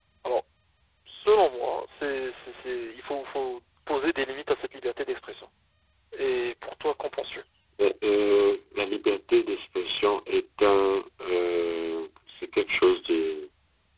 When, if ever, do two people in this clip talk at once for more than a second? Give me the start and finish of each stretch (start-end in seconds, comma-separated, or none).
none